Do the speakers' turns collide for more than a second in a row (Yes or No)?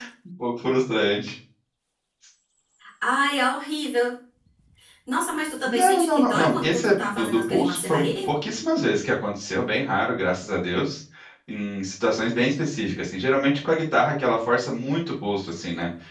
Yes